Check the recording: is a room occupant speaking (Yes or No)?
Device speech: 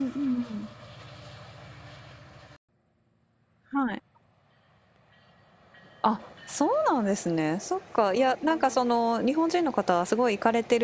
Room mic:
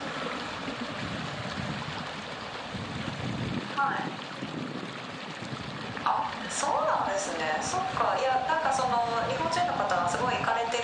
No